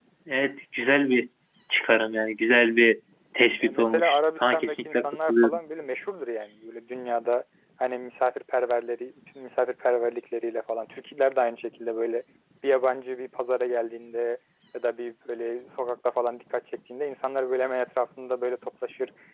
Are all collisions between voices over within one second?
No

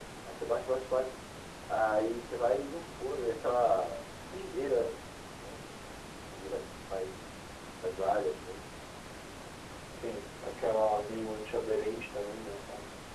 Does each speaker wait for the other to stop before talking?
Yes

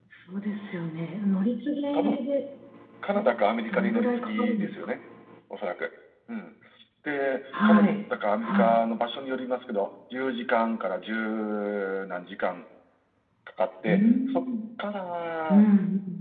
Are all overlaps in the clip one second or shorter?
No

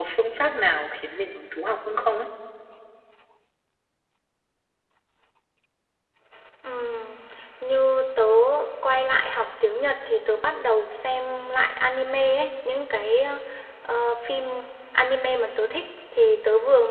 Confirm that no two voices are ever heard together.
Yes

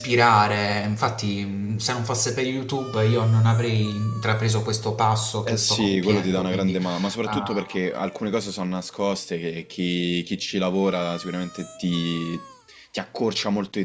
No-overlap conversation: No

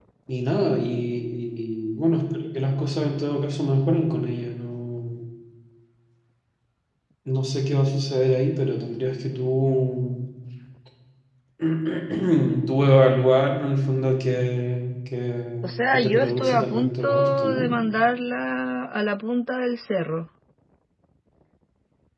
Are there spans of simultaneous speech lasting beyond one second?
Yes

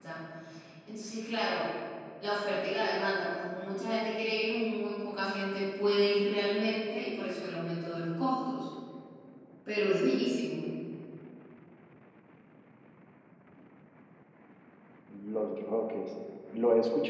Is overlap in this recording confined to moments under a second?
Yes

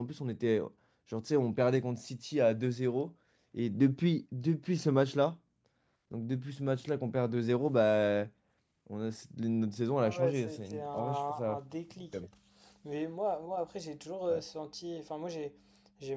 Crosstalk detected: Yes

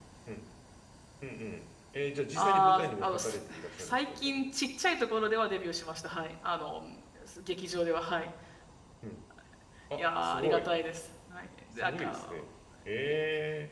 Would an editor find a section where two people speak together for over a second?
Yes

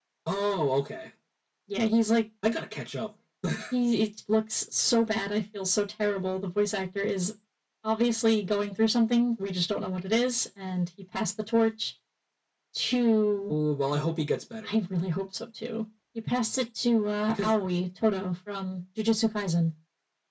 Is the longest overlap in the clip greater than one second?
No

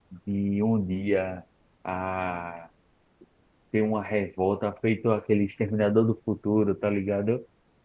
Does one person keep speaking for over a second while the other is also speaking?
No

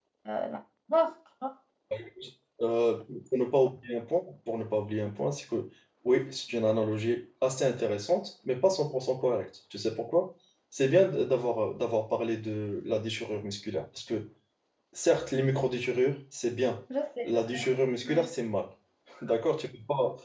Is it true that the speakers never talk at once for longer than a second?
Yes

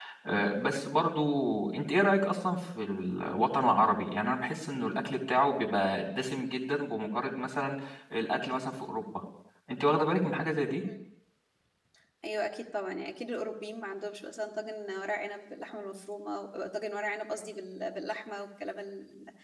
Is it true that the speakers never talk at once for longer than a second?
Yes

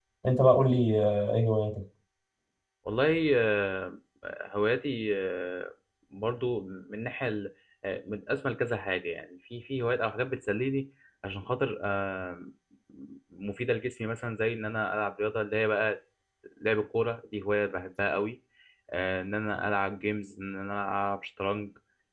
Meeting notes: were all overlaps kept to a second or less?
Yes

